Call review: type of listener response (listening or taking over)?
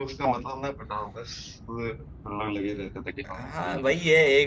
taking over